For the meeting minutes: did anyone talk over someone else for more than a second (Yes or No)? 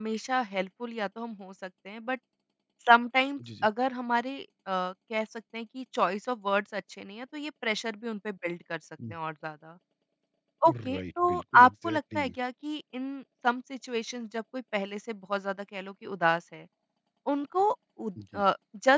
Yes